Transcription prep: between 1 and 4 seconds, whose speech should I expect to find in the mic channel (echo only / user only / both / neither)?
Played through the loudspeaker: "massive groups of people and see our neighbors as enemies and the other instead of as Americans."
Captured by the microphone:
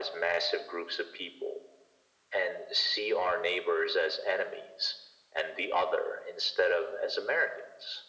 echo only